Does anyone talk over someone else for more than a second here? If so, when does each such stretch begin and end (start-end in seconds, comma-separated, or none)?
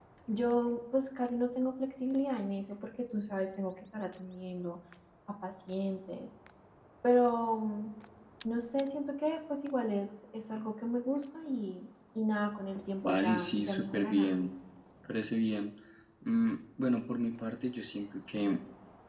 13.0-14.3